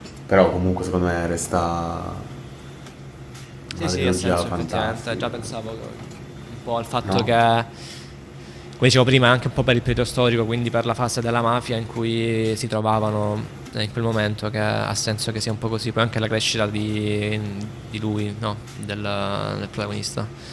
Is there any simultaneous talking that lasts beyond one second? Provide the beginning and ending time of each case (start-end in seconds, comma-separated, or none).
3.8-5.4